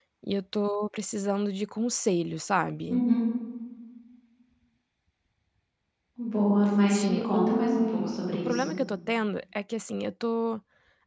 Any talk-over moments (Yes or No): Yes